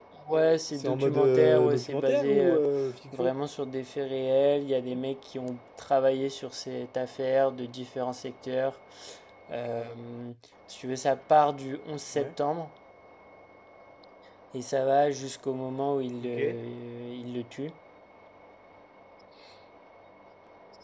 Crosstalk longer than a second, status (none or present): present